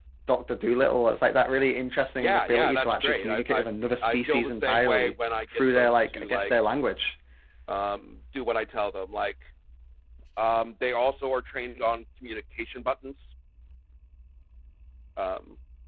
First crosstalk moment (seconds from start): 2 s

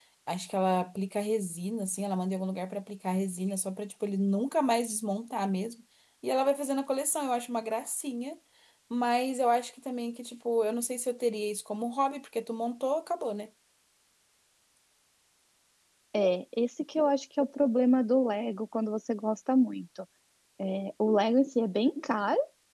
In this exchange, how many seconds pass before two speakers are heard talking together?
none

